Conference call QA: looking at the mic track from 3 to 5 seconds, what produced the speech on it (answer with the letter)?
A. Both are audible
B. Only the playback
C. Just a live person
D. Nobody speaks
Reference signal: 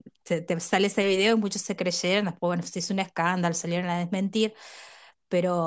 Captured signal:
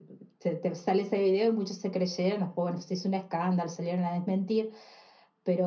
B